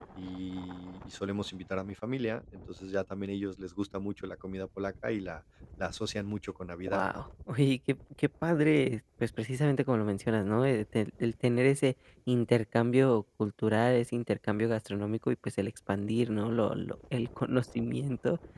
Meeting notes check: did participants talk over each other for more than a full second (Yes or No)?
No